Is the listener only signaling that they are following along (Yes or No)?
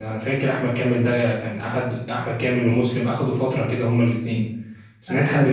No